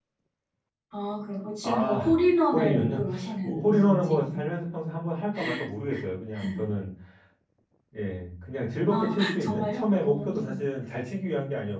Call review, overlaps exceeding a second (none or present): present